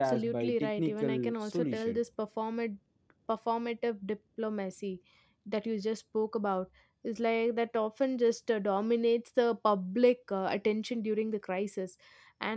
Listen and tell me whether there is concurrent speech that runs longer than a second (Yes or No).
Yes